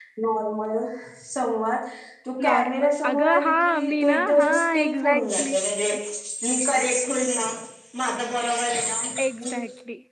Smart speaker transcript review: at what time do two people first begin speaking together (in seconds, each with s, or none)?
2.4 s